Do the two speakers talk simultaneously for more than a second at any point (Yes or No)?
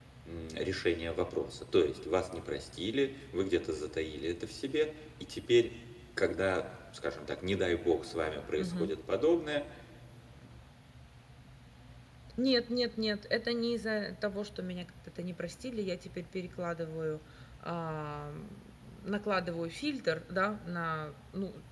No